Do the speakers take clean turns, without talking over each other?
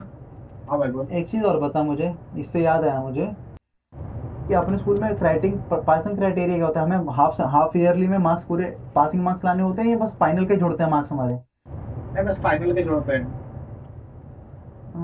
Yes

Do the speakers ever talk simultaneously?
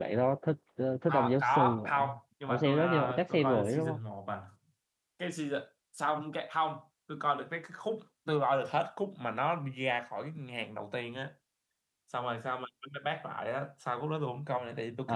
Yes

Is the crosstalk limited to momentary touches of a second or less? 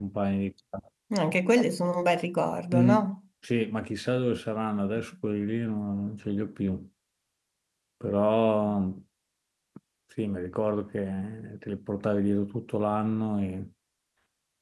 Yes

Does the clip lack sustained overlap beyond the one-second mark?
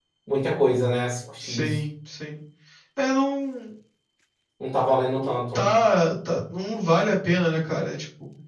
Yes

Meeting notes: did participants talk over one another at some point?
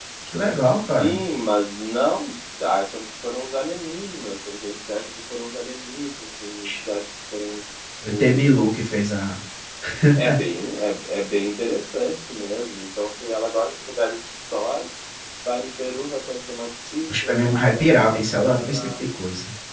Yes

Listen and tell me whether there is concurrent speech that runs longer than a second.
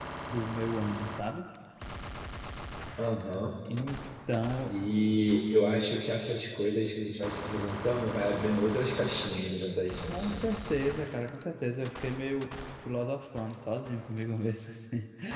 No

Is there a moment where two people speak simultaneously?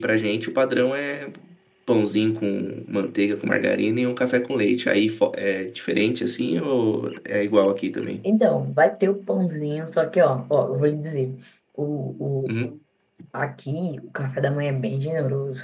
No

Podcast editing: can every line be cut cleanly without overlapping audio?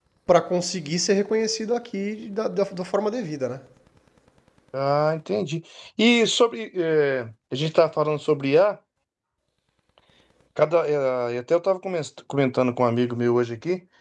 Yes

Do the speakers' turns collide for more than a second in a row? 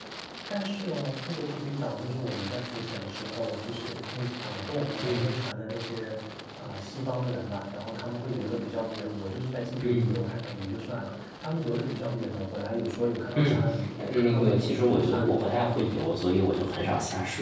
Yes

